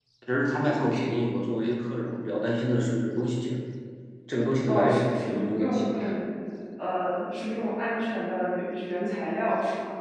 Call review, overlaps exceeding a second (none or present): present